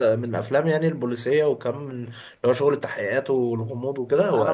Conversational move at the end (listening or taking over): taking over